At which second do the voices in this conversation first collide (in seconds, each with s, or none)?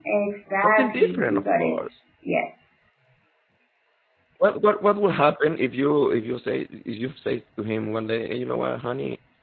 0.6 s